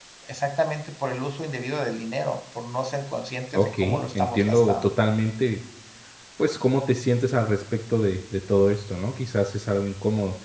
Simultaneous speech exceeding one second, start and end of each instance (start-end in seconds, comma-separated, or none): 3.5-4.9